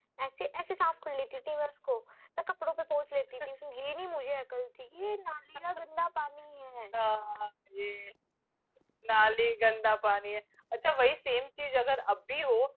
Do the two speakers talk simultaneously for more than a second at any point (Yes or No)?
No